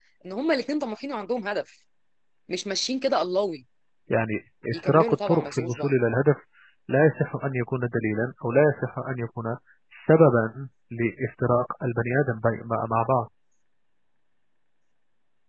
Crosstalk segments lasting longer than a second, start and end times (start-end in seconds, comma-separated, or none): 4.7-5.9